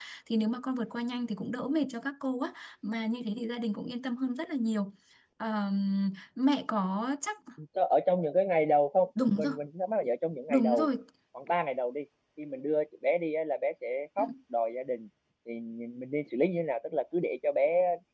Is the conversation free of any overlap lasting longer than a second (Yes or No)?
Yes